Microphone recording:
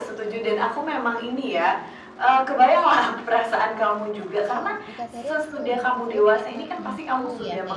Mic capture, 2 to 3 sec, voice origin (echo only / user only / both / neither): echo only